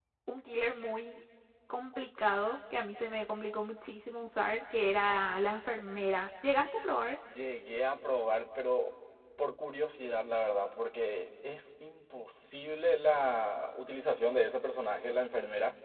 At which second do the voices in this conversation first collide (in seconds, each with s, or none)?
none